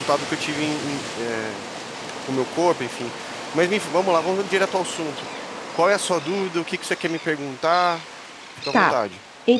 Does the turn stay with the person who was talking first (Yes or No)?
No